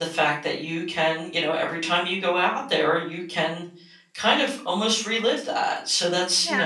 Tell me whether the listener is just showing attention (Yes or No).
No